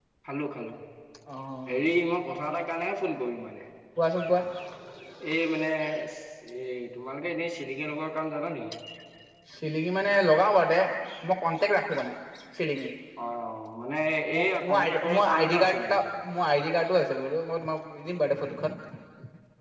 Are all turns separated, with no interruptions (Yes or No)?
No